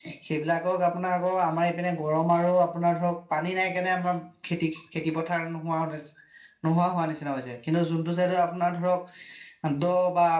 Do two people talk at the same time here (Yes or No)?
No